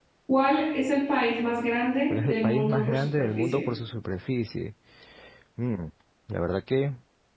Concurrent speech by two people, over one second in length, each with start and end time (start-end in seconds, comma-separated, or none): 2.1-3.6